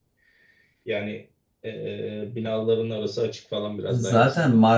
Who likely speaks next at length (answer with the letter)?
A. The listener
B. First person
A